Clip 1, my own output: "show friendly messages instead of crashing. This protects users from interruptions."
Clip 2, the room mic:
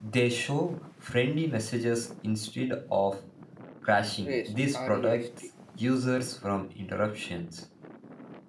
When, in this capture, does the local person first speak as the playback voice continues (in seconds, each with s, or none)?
4.2 s